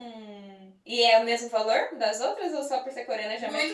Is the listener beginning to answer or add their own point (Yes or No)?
Yes